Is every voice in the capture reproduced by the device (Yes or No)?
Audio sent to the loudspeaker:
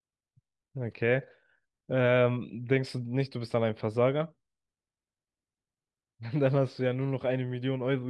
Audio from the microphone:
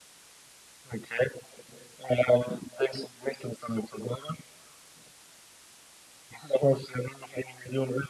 Yes